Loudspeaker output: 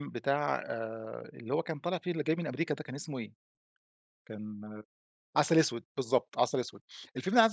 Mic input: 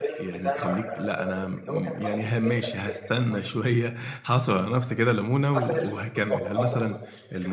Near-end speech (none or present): present